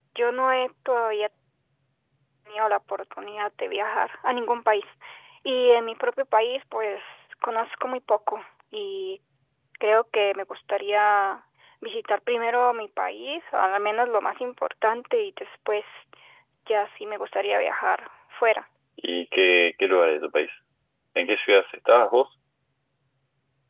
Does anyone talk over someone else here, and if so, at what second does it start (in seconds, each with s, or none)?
none